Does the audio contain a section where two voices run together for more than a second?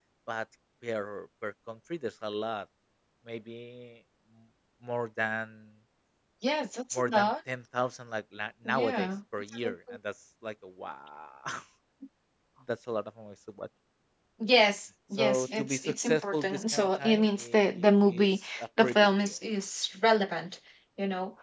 Yes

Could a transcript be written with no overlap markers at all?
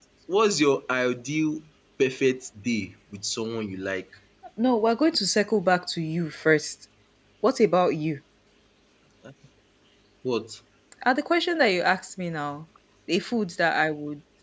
Yes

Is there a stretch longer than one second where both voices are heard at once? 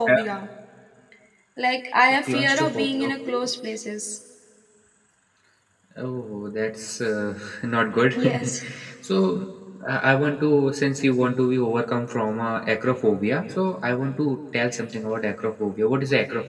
Yes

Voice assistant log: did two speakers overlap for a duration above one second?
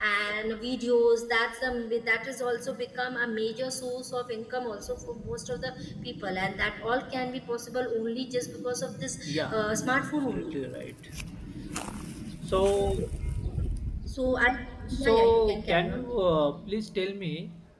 Yes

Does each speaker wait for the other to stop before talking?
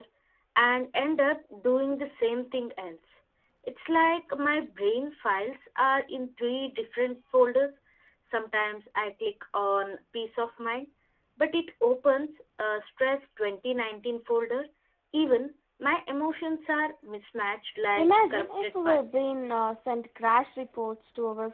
No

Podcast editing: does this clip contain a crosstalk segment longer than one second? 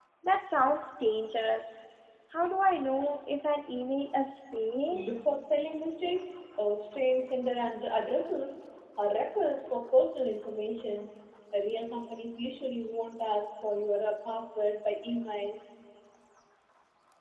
No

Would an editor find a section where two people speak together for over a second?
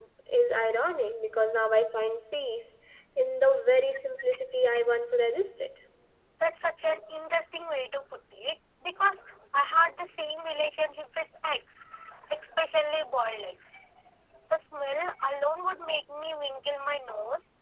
No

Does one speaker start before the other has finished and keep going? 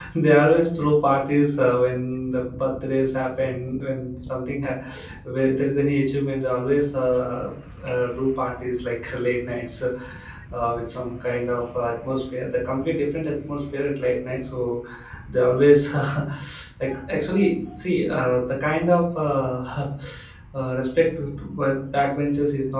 No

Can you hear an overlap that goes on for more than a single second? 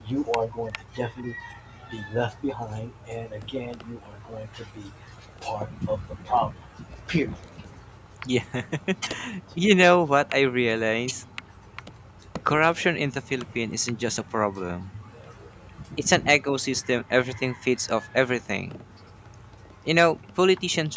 No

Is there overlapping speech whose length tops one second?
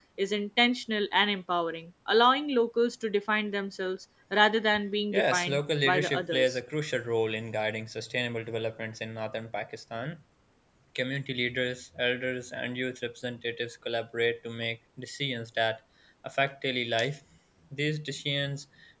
Yes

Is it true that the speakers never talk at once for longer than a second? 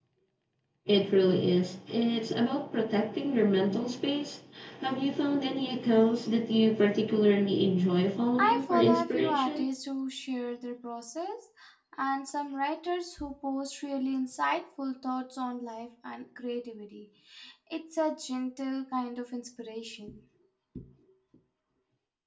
No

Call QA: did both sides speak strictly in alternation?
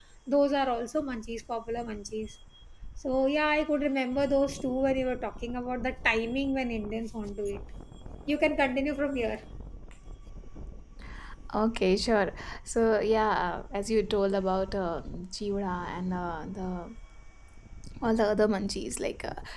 Yes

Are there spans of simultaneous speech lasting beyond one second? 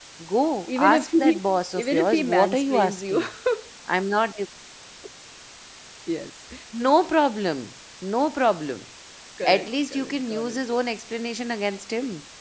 Yes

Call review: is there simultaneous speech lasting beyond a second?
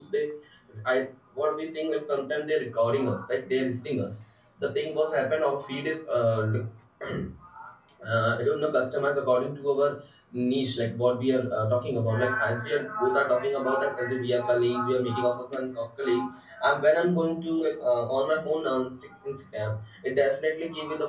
No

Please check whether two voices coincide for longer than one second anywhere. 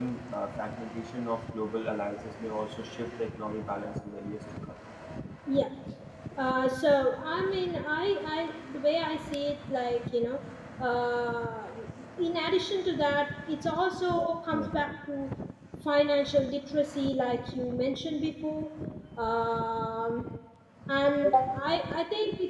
No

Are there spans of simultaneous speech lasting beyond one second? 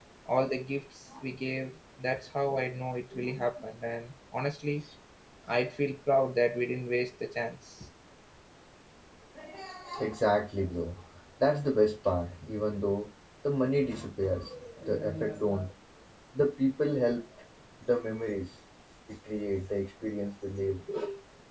No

